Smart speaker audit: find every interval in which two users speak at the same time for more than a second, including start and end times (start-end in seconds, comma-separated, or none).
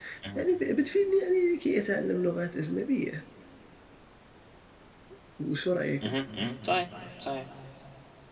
none